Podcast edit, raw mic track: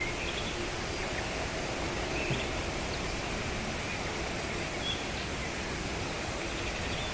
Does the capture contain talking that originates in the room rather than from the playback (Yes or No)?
No